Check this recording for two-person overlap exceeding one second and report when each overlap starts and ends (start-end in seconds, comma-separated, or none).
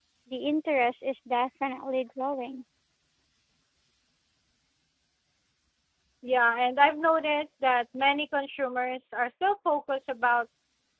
none